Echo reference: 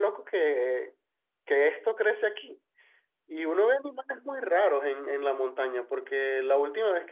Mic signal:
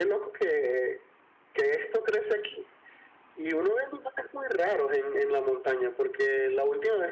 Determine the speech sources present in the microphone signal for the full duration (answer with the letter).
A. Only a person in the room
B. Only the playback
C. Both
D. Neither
B